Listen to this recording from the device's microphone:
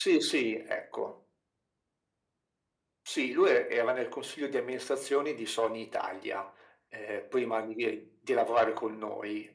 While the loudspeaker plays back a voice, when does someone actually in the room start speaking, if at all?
none

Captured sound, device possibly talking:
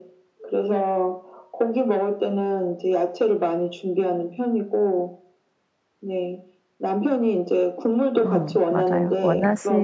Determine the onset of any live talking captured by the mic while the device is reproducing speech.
8.2 s

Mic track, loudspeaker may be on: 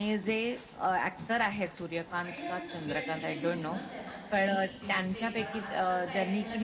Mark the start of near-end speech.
2.2 s

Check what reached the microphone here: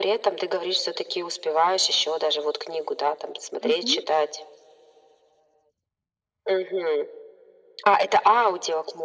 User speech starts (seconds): 3.6 s

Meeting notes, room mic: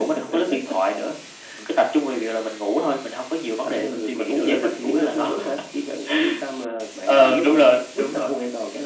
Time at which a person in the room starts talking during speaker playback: none

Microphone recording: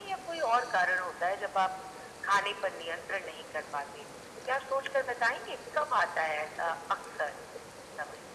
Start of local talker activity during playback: none

